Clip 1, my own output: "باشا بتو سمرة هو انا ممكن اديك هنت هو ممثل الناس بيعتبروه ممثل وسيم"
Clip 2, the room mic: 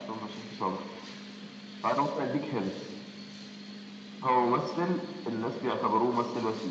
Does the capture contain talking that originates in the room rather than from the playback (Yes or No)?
No